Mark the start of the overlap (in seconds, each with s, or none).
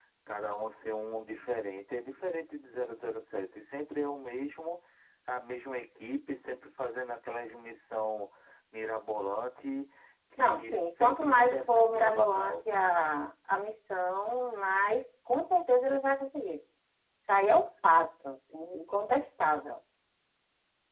10.4 s